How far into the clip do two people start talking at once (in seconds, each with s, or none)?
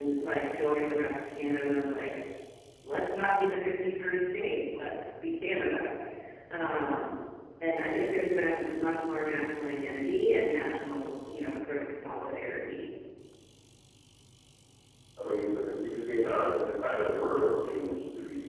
none